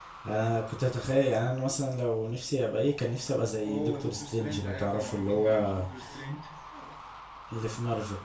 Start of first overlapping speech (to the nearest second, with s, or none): 4 s